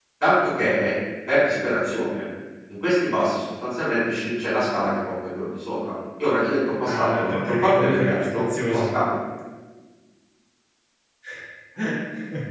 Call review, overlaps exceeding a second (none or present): present